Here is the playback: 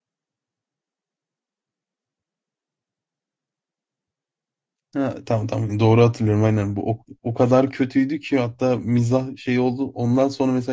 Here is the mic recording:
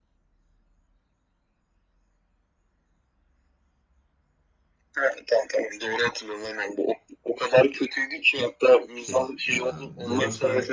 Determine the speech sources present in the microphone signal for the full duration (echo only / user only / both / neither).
both